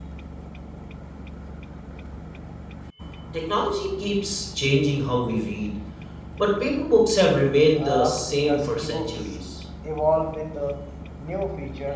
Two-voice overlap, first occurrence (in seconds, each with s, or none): 7.8 s